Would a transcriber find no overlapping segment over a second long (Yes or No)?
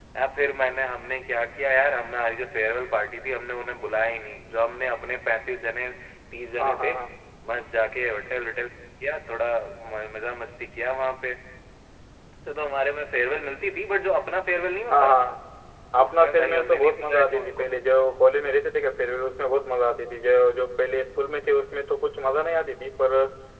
No